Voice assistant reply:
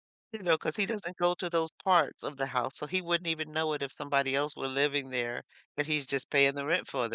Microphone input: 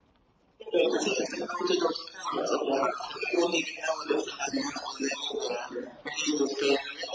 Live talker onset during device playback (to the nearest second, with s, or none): none